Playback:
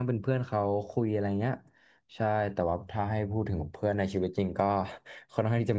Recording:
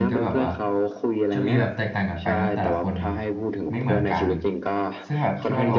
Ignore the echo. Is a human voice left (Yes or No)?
Yes